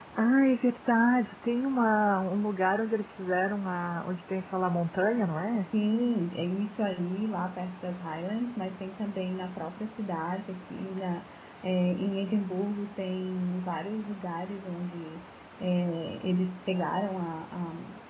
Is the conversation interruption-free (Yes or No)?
Yes